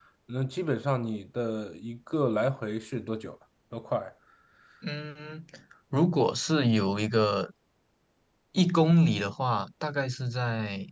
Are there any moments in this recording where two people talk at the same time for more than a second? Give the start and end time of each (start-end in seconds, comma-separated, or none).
none